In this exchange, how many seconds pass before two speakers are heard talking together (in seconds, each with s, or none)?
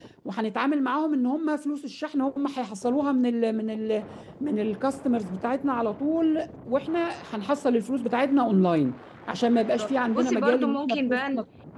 9.5 s